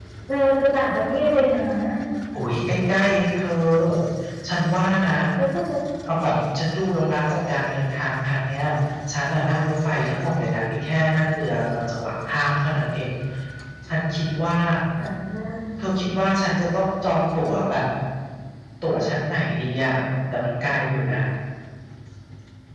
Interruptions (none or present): none